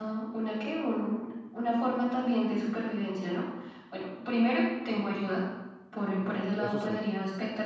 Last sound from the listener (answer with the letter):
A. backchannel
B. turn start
A